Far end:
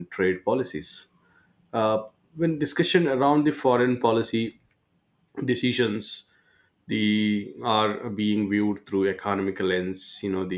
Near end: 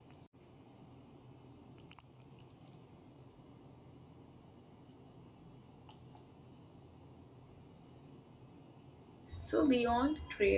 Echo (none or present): none